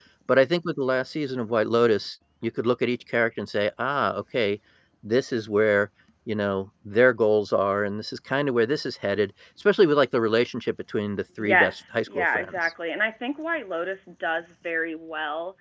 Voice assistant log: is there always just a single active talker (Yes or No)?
No